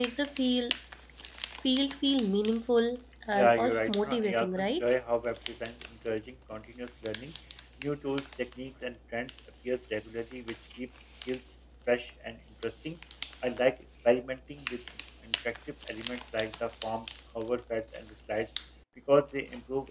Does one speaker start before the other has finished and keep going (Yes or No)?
Yes